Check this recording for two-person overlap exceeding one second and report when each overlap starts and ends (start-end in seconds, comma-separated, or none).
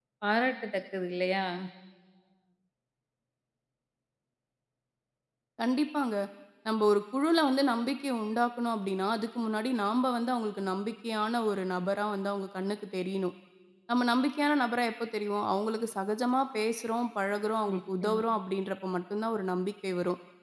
none